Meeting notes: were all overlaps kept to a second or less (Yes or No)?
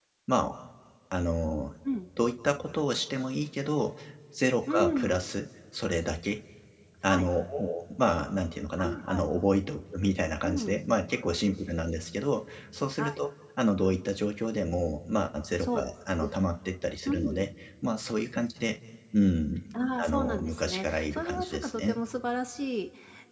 No